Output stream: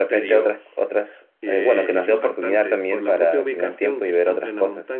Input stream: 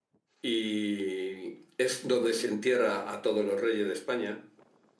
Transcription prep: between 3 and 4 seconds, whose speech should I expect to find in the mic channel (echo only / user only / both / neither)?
user only